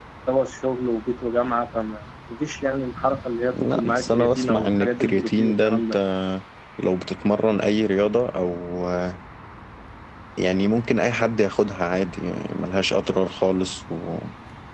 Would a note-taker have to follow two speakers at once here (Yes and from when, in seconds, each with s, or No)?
Yes, from 3.5 s